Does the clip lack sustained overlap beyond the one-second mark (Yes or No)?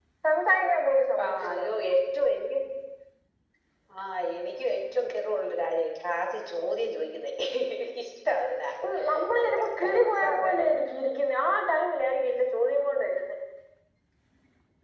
No